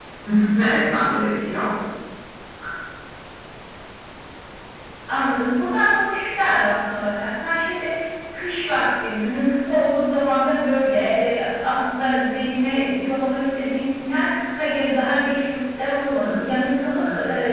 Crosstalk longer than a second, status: none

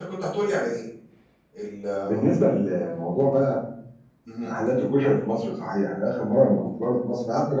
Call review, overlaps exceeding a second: none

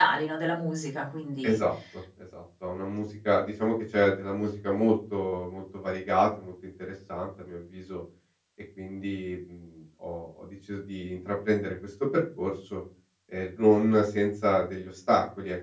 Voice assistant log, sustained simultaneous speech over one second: none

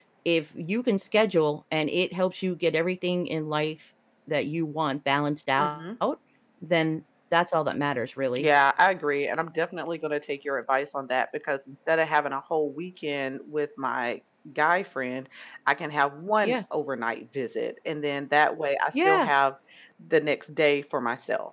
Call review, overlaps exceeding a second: none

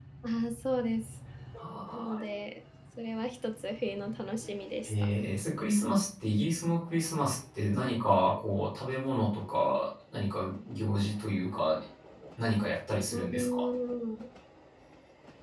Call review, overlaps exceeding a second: none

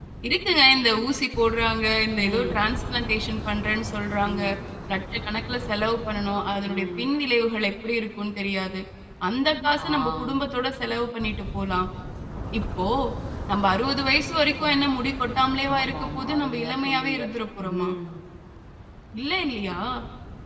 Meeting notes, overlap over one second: present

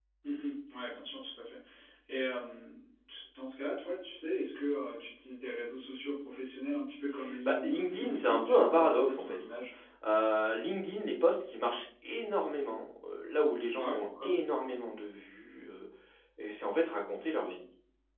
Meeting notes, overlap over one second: present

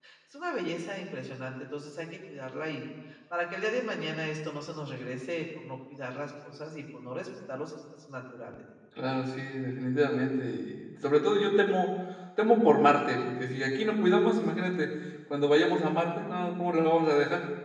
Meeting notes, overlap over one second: none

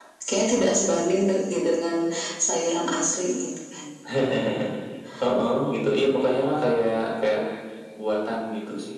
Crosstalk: none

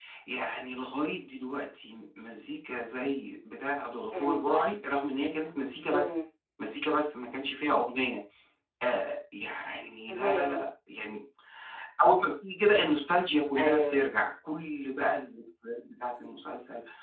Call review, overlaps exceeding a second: none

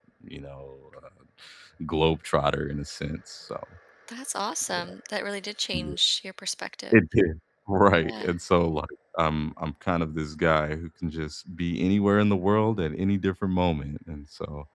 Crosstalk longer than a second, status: none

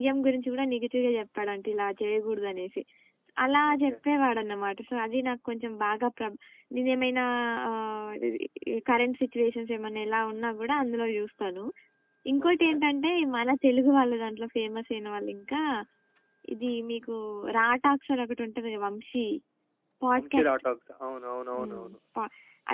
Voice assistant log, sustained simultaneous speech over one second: none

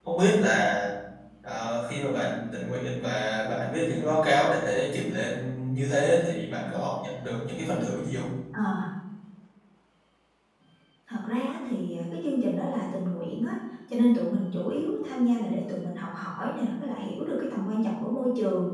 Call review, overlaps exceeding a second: none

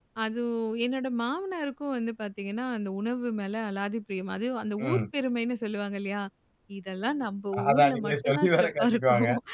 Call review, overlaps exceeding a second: present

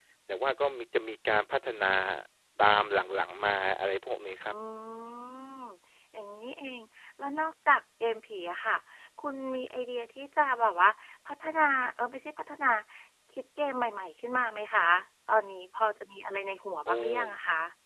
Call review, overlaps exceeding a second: none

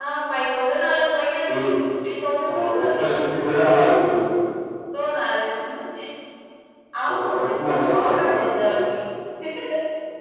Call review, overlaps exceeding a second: present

